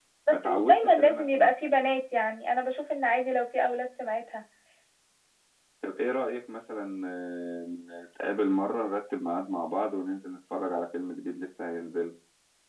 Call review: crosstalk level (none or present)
present